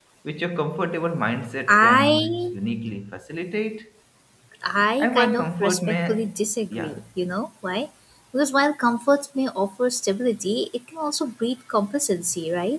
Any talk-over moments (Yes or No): Yes